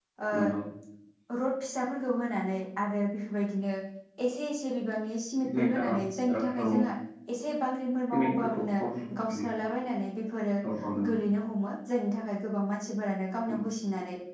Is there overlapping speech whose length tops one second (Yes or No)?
Yes